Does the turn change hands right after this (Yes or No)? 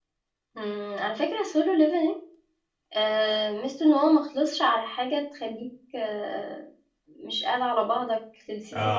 Yes